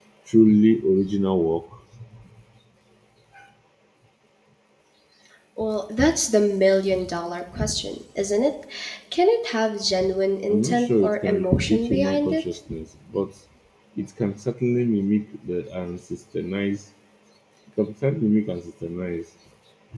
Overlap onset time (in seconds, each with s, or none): 10.5 s